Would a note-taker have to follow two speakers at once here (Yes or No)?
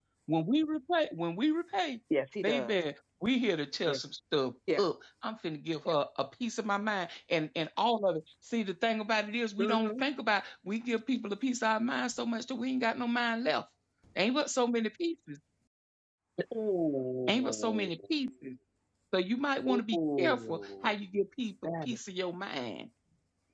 Yes